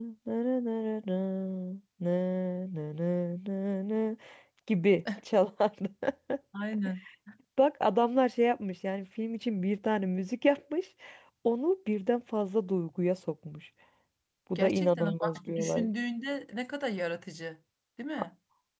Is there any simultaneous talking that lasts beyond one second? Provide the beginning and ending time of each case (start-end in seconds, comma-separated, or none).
14.6-15.9